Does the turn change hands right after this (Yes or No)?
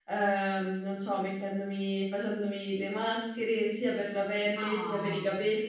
No